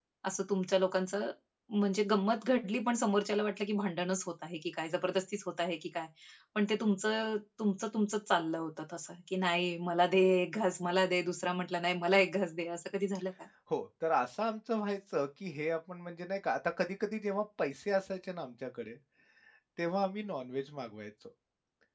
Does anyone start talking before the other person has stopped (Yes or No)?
No